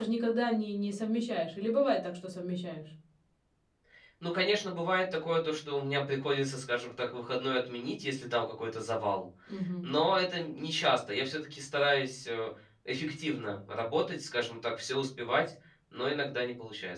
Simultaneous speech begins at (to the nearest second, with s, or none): none